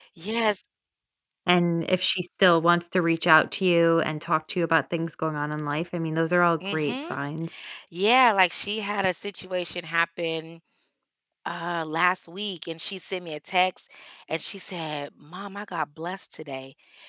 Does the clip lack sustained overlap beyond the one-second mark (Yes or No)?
Yes